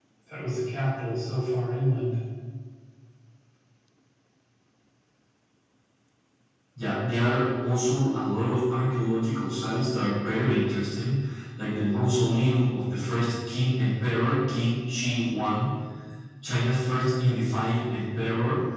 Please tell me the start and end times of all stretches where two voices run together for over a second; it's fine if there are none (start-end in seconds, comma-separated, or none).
none